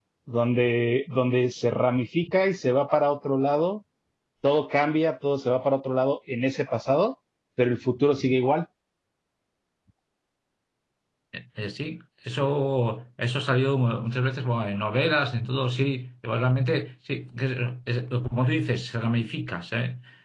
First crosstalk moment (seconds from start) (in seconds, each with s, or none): none